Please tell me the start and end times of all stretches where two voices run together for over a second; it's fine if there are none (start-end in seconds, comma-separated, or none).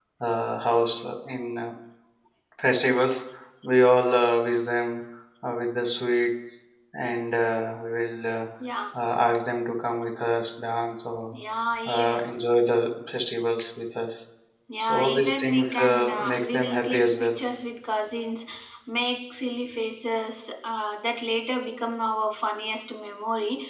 14.8-17.4